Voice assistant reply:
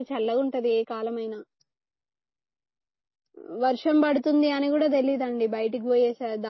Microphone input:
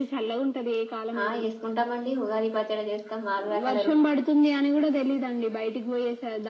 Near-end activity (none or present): present